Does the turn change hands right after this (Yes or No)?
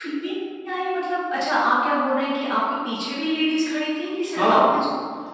Yes